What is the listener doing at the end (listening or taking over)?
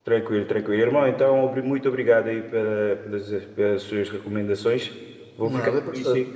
listening